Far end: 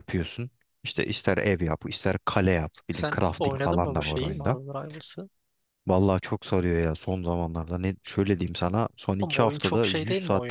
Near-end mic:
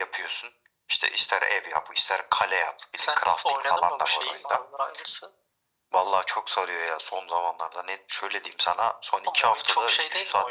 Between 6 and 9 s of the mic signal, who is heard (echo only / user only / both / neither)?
echo only